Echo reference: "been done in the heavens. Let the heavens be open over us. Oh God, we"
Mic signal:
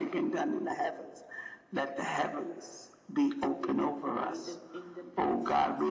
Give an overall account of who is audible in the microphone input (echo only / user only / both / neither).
both